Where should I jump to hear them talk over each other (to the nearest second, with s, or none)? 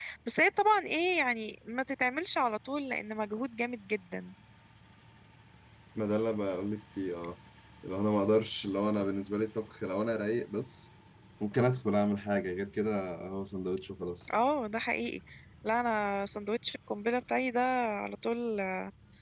none